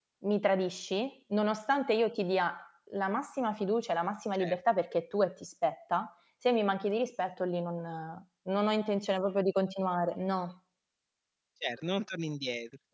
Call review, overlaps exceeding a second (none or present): none